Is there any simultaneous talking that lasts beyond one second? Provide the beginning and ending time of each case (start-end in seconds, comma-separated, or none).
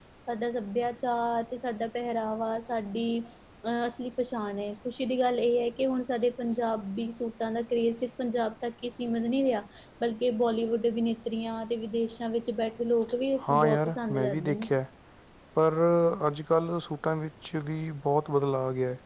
13.5-14.7